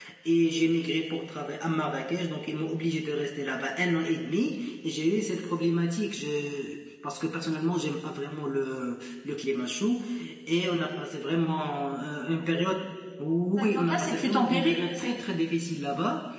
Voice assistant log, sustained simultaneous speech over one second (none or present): present